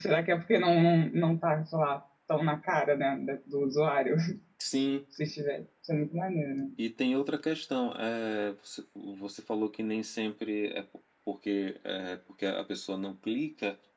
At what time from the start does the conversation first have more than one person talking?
none

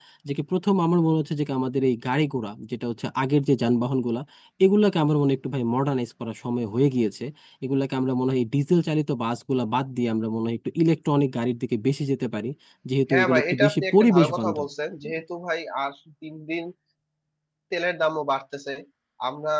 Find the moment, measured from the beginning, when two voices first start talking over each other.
13.1 s

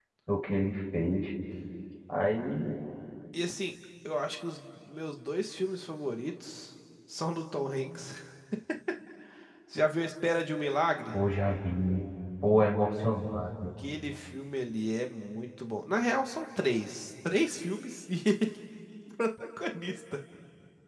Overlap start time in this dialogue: none

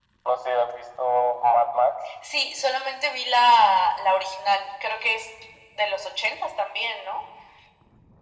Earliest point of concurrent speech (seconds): none

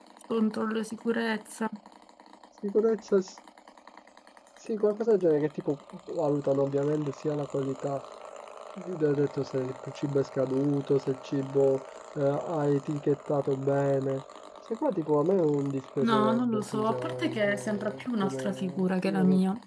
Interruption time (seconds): 16.0 s

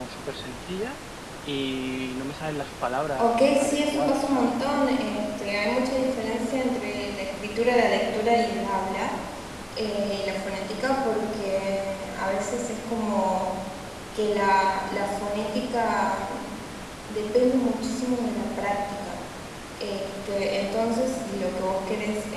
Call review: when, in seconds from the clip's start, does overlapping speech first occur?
3.2 s

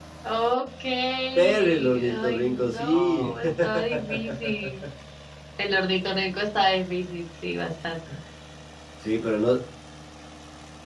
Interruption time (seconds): 1.4 s

